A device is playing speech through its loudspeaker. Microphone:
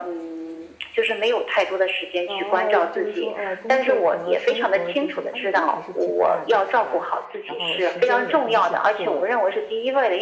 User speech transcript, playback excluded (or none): 哦，就是说，啊，工作和生活就是压力都还是挺大的，是吧？然后时间也很紧迫。